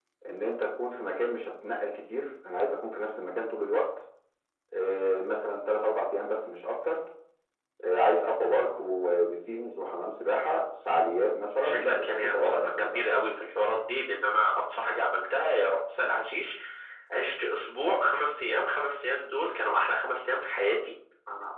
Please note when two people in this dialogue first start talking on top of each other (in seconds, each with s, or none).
11.6 s